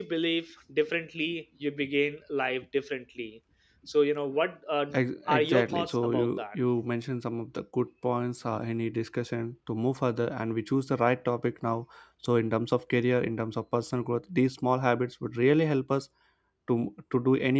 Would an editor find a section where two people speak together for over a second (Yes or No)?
Yes